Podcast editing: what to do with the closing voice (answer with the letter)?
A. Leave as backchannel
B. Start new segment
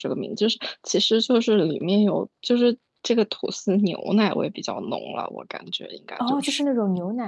B